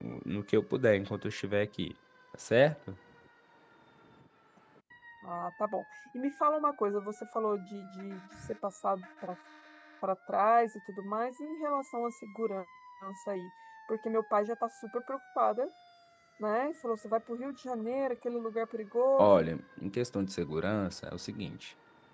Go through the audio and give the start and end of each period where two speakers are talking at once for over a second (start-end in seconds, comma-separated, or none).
none